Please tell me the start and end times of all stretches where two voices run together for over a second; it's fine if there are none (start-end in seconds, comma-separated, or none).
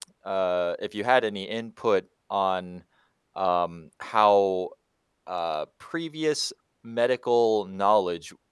none